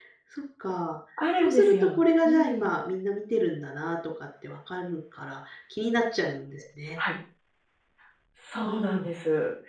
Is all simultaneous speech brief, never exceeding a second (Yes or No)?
No